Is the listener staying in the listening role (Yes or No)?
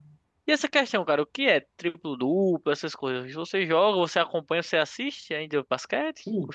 No